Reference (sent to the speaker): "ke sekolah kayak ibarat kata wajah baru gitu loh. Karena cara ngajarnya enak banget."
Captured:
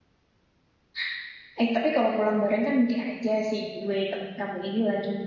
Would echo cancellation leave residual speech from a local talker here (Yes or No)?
Yes